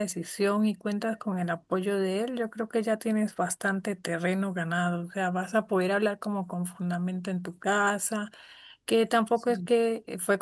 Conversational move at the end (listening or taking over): listening